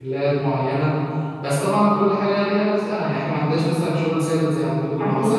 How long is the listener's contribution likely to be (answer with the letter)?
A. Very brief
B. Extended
A